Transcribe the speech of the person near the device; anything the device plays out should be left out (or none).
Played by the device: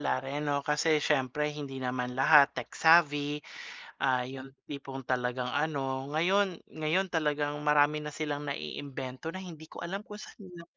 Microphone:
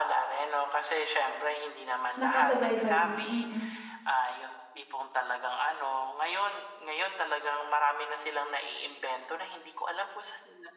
Nakasubaybay din mm.